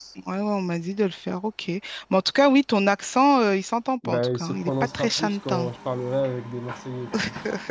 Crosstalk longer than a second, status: present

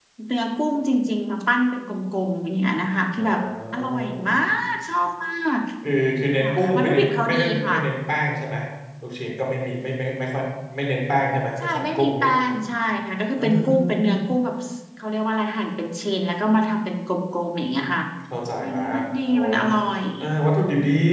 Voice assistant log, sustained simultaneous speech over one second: present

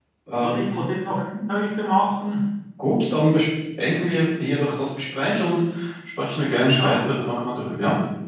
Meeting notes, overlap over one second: none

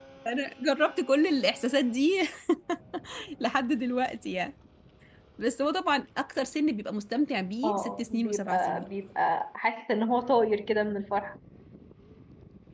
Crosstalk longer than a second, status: present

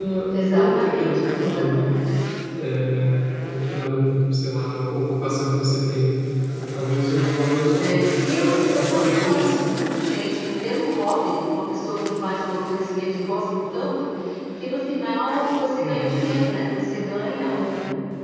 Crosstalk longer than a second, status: present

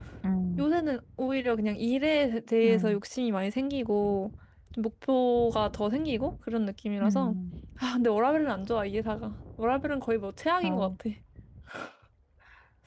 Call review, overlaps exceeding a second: none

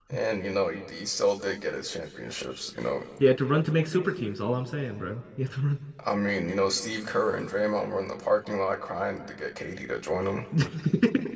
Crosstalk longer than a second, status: none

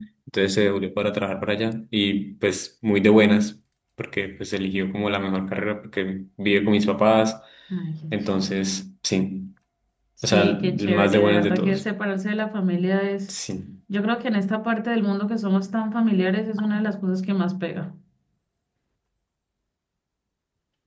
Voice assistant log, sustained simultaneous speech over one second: present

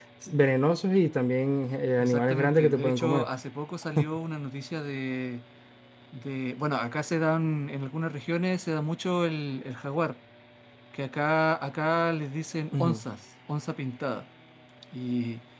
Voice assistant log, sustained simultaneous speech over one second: present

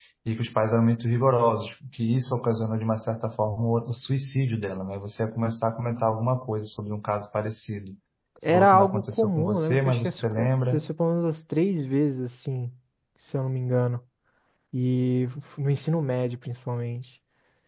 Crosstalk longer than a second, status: present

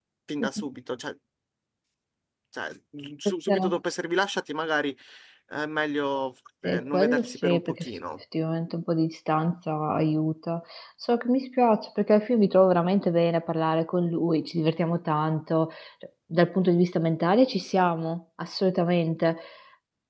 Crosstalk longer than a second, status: present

